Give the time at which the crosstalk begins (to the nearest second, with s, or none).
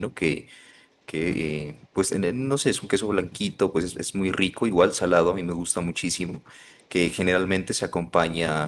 none